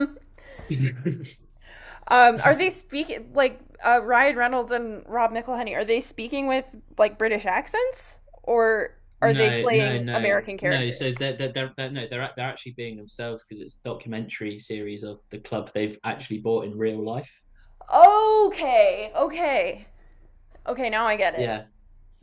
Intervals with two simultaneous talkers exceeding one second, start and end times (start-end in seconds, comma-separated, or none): 9.2-11.1